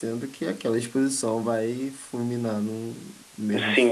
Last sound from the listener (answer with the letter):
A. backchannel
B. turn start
B